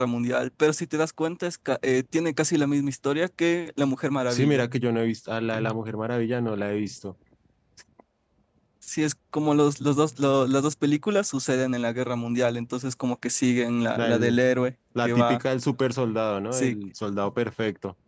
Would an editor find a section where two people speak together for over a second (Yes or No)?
No